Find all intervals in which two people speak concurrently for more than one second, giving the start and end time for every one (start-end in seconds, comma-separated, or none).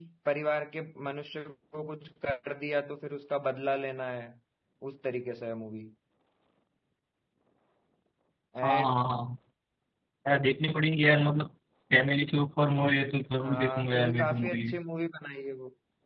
13.4-14.6